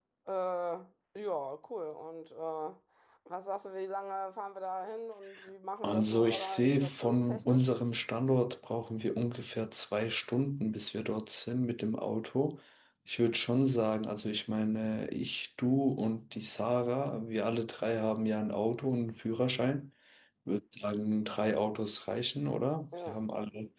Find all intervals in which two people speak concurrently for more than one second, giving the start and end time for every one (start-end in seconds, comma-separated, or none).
5.8-7.7